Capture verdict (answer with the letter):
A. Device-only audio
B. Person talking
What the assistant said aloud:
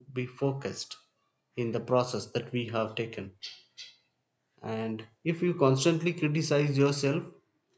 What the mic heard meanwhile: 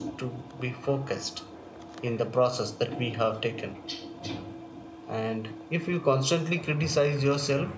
A